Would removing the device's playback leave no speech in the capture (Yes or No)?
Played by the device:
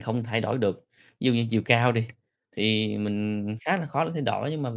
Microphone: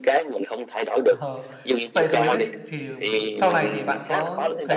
No